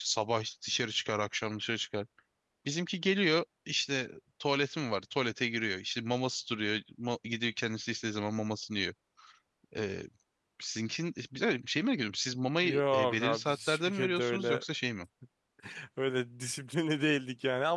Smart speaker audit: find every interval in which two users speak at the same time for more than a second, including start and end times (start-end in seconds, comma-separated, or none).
12.6-14.6